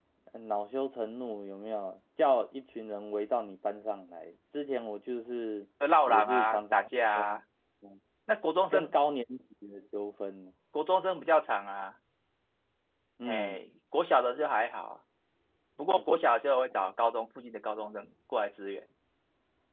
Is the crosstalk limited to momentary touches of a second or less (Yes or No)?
No